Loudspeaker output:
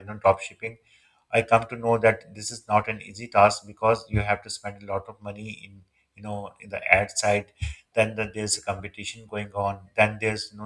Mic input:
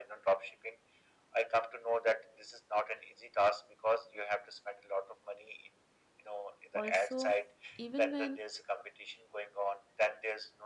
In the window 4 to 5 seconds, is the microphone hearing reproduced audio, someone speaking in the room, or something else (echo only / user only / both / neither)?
echo only